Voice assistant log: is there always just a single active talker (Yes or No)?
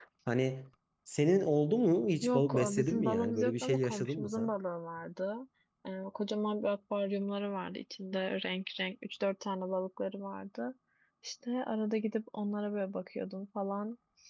No